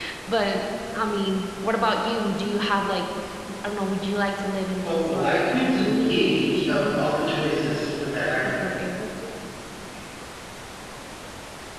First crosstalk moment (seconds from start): 4.8 s

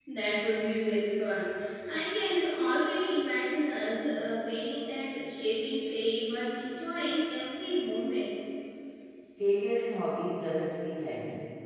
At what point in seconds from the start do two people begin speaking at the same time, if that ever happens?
none

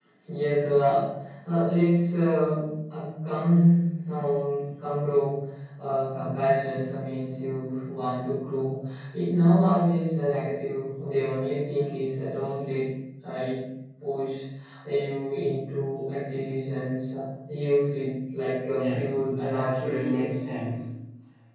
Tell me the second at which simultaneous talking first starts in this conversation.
18.6 s

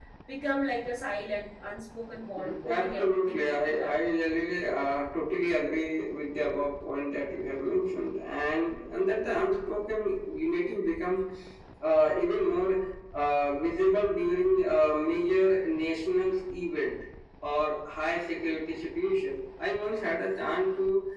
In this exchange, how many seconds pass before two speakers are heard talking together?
2.4 s

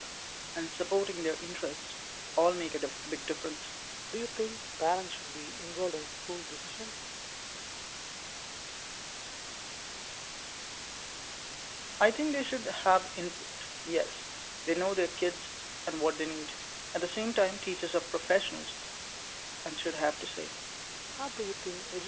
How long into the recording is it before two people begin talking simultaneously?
none

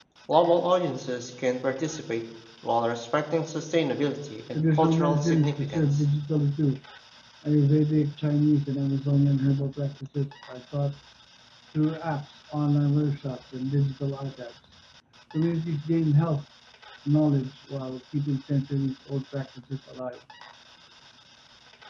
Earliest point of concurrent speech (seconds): 4.5 s

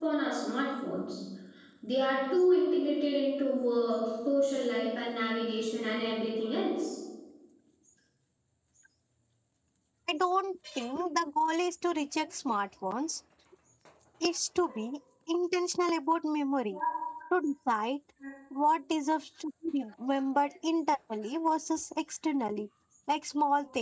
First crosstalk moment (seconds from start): none

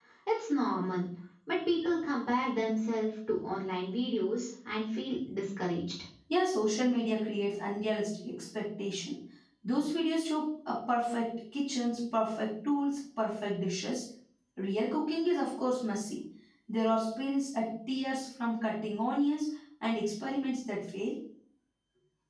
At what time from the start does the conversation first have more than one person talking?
none

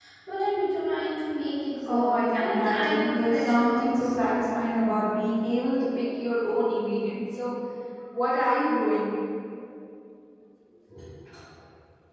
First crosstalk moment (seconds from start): 1.9 s

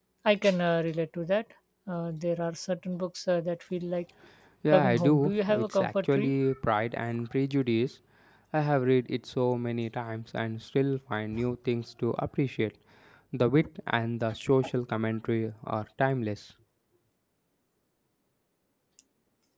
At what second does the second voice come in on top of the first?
4.7 s

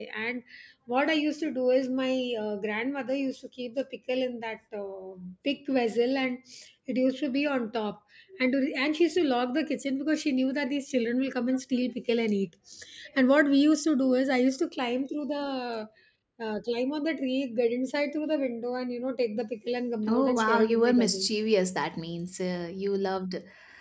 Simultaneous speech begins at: 20.1 s

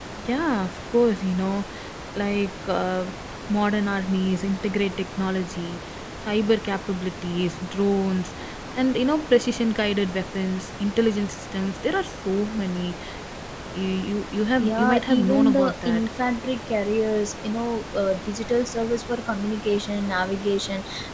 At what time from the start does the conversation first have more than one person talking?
14.6 s

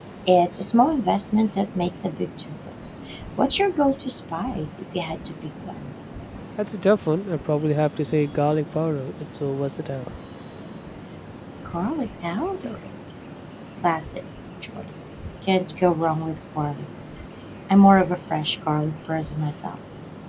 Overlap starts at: none

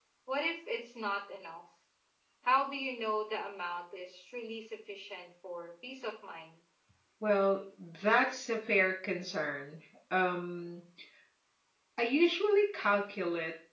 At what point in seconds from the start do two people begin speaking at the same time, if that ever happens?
none

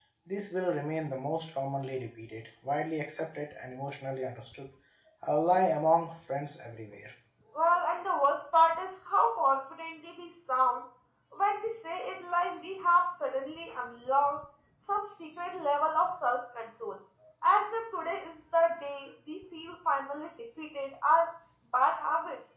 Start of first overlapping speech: none

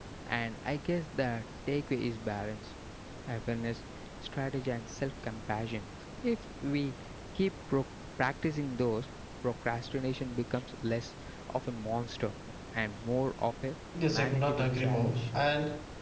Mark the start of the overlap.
14.0 s

